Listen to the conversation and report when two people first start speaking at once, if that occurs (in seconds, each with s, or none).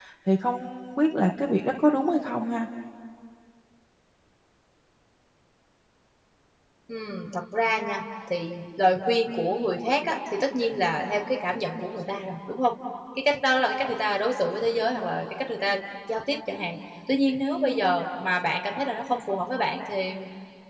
none